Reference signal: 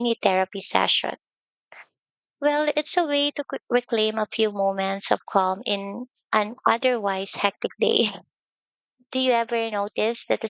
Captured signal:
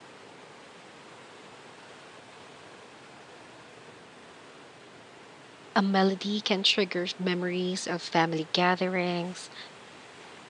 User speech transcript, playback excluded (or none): A melody can trigger memories of family gatherings,